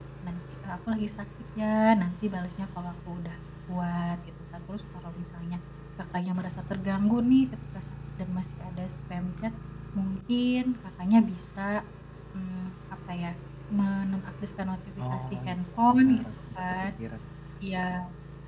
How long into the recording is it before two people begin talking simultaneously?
15.0 s

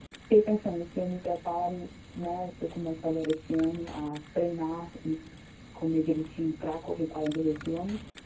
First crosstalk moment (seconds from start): none

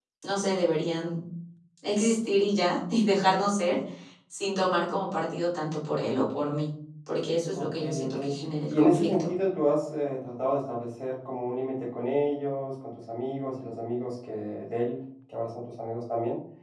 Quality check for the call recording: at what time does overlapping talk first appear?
7.5 s

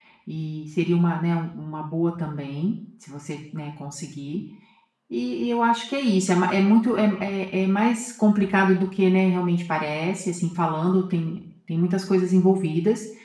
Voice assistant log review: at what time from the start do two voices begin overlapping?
none

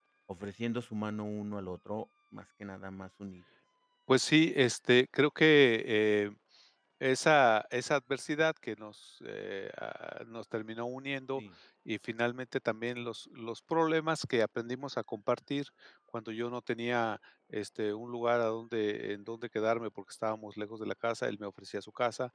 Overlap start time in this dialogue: none

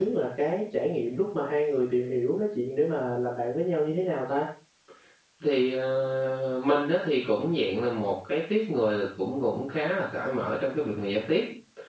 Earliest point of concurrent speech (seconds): none

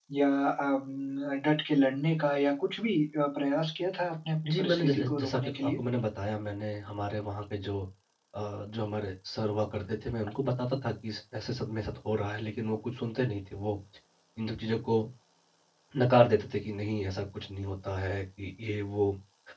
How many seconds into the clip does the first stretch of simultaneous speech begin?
4.4 s

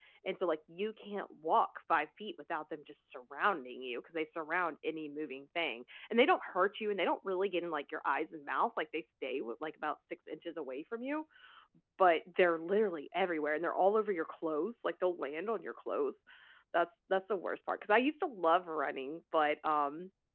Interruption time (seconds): none

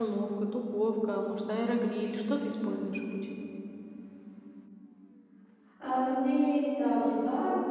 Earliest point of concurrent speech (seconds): none

